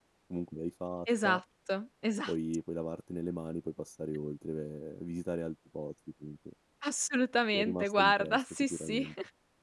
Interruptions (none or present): present